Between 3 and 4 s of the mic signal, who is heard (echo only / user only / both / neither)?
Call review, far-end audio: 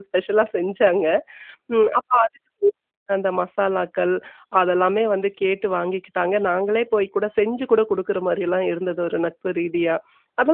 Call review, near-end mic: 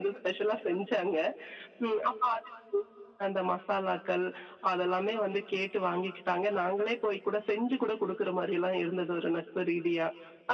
echo only